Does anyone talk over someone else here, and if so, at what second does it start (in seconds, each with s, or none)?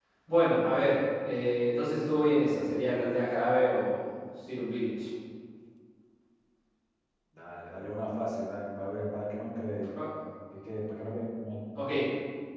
none